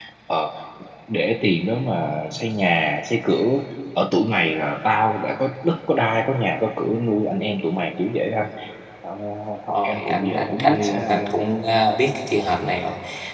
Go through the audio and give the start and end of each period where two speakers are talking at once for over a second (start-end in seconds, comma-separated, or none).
9.7-11.3